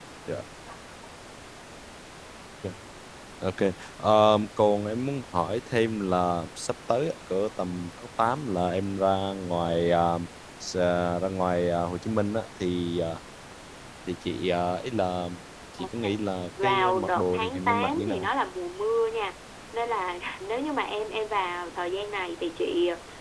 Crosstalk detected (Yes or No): Yes